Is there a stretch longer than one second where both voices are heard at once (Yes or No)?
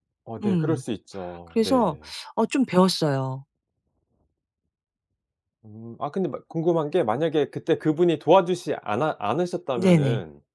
No